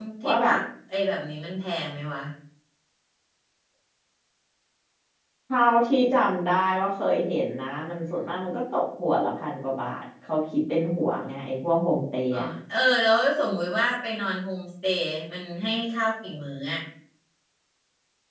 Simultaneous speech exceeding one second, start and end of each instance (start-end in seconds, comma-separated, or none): none